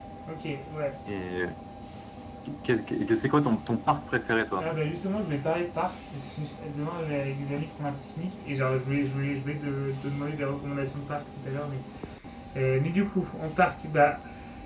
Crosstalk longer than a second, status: none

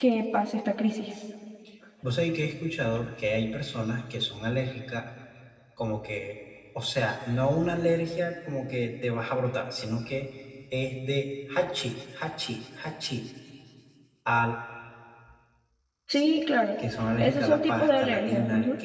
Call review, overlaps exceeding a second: present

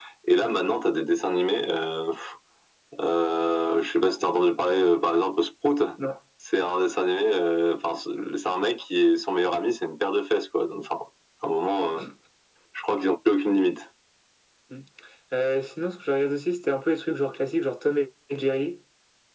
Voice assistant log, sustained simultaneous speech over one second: none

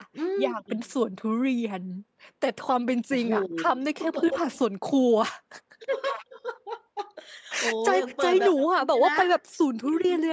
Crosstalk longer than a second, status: present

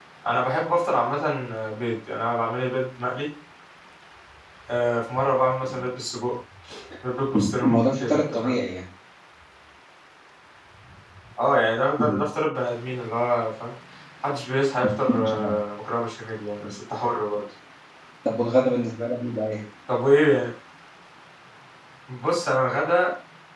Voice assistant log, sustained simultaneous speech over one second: present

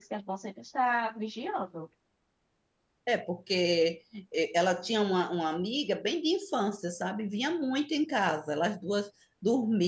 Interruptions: none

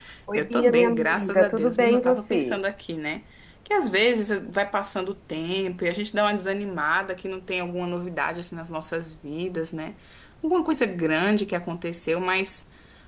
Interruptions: present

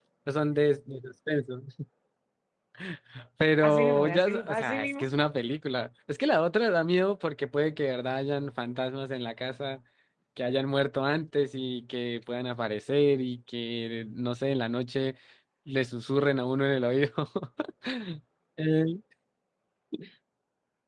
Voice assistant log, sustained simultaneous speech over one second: present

